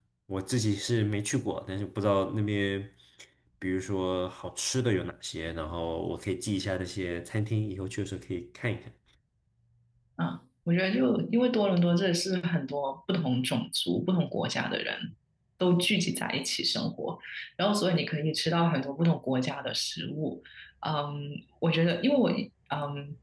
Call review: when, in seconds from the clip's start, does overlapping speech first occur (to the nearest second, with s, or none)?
none